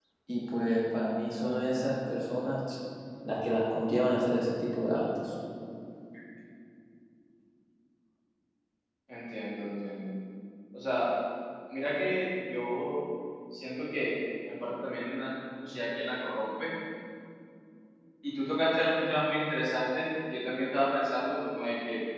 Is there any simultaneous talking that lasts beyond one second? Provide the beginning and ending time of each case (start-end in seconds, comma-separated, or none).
none